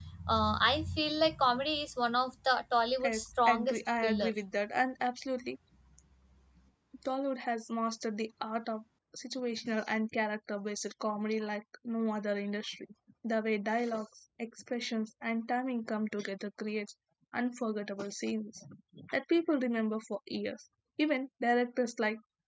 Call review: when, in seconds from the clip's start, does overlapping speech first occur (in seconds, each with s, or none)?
3.0 s